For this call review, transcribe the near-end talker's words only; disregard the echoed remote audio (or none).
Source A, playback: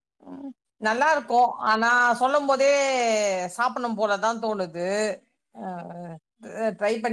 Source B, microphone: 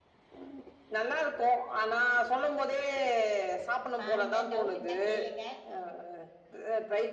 பாருங்க டவுட் இருந்தா கேளுங்க அ